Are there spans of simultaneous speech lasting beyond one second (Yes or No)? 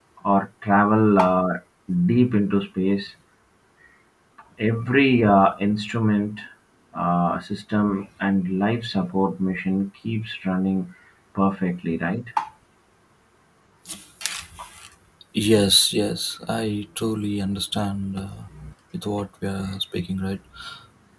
No